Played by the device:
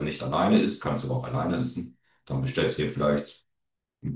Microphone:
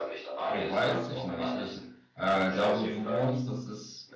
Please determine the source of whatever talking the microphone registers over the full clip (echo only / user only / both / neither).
both